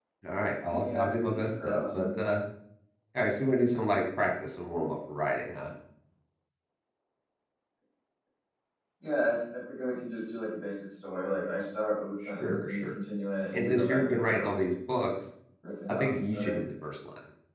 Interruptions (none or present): present